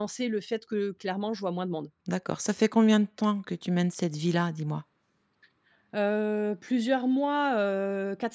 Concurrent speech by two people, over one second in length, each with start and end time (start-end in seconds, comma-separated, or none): none